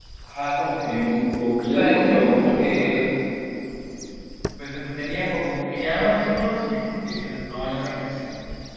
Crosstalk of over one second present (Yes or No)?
Yes